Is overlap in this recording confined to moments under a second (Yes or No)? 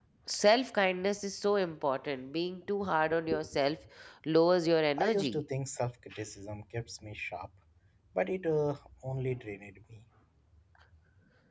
Yes